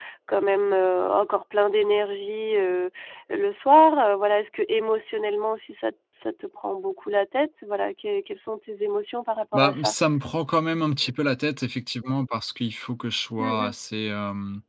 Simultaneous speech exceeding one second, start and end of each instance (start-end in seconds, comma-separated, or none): none